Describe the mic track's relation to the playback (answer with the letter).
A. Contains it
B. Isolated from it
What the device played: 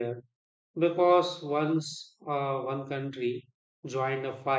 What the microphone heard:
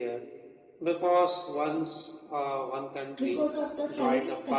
A